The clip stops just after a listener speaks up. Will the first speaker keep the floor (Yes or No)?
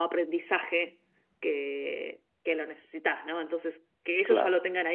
Yes